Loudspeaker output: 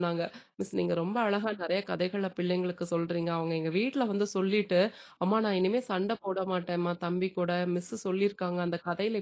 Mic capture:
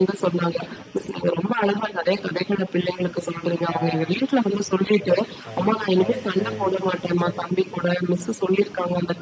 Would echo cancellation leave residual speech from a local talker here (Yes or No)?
Yes